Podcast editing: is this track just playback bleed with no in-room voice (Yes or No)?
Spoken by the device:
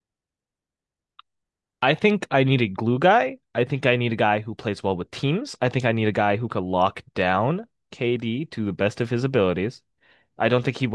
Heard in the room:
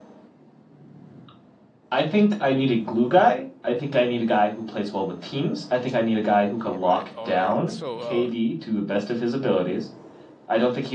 No